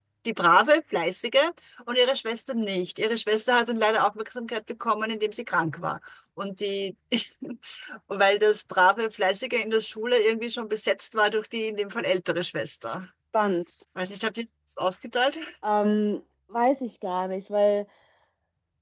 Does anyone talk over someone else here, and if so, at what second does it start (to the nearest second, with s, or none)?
none